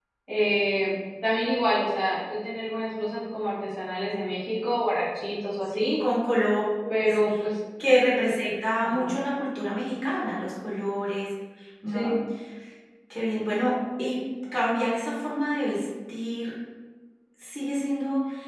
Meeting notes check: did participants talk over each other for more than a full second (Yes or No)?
No